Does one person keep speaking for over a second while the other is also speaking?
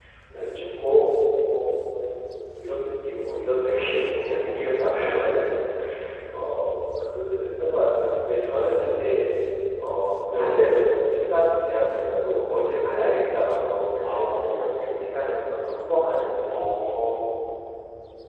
Yes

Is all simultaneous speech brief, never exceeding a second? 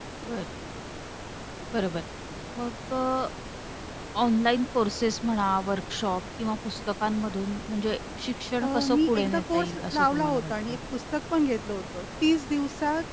No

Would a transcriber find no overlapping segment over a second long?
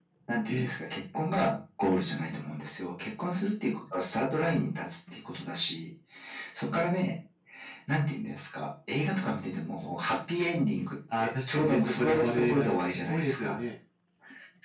No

